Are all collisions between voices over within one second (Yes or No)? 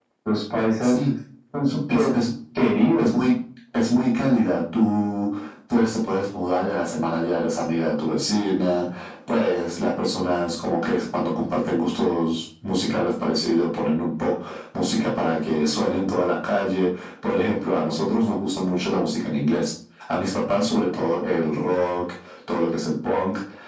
Yes